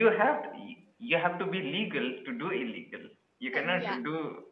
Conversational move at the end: listening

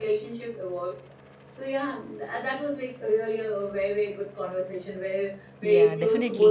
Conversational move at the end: taking over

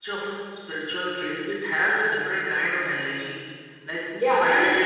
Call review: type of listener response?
taking over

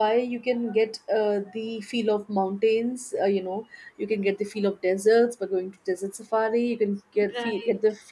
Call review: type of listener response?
listening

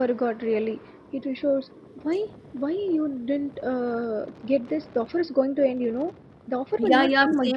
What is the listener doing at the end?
taking over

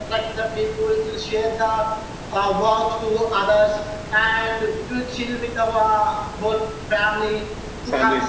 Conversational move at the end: listening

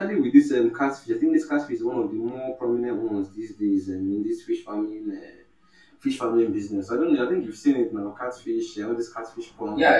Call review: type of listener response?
taking over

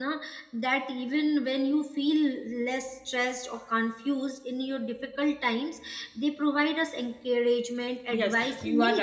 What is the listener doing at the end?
taking over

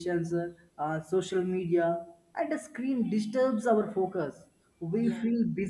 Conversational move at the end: listening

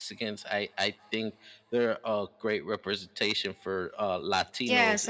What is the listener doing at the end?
taking over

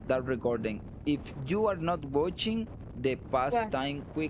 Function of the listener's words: listening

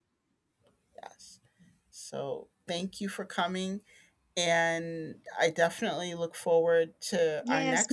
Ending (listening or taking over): taking over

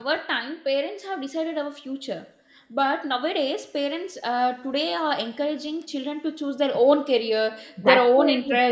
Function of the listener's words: listening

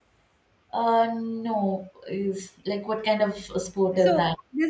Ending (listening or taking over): taking over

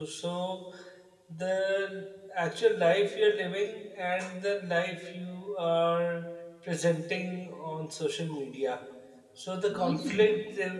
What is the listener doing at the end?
listening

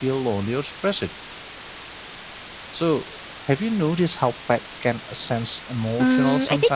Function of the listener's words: taking over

